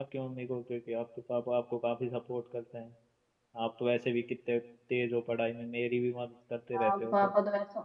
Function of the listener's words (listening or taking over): taking over